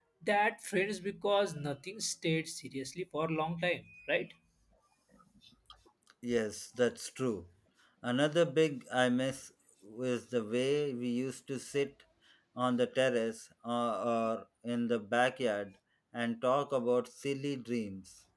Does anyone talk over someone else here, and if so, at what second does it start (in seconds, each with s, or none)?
none